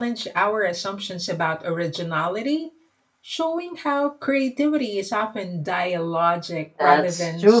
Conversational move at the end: taking over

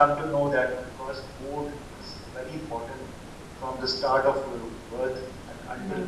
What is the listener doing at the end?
listening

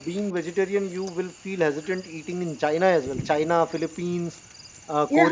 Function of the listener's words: listening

